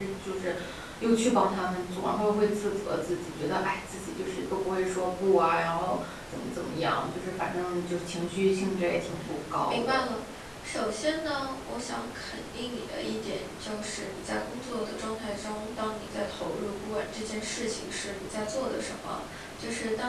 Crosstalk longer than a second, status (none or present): none